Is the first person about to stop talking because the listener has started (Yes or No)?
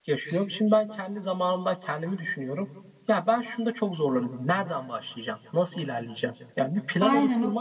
Yes